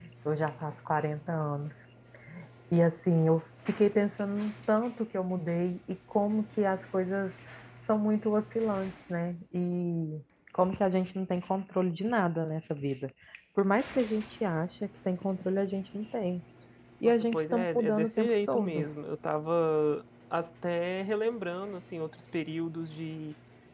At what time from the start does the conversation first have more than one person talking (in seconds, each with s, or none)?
17.3 s